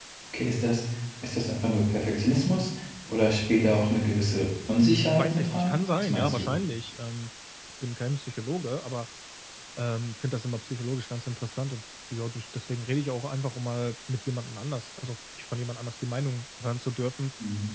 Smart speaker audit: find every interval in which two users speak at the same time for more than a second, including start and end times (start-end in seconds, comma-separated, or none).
5.2-6.5